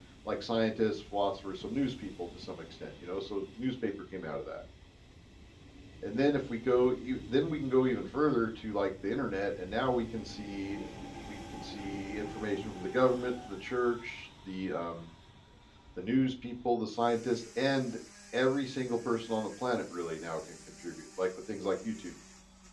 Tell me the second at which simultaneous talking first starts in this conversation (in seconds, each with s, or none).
none